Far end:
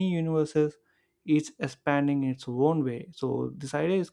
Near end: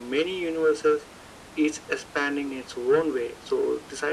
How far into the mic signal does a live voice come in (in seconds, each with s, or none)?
none